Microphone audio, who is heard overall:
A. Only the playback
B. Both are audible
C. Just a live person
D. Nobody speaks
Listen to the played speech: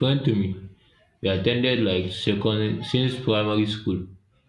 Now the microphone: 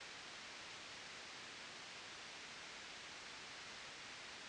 D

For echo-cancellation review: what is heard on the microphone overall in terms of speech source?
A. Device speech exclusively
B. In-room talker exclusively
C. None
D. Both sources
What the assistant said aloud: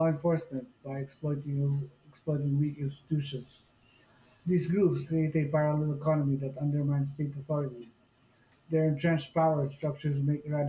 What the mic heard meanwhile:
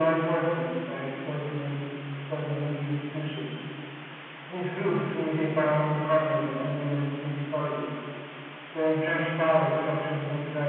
A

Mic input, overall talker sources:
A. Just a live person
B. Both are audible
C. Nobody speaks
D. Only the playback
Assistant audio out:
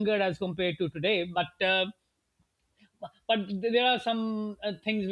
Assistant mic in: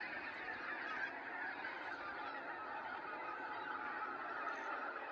C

